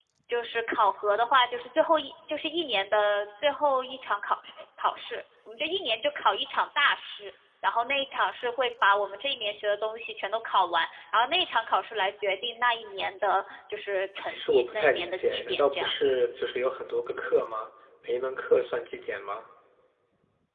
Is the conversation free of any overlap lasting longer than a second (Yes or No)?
No